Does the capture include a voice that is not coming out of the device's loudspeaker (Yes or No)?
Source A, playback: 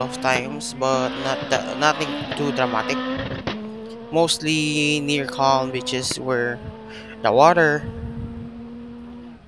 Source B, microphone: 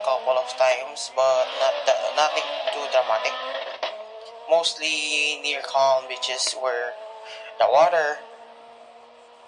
No